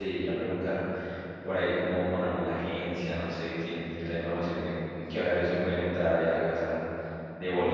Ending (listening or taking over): taking over